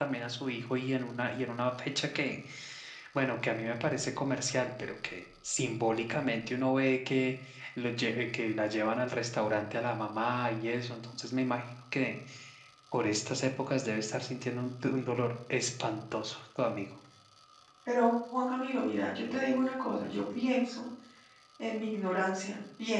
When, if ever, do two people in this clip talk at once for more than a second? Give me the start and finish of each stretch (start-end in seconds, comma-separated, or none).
none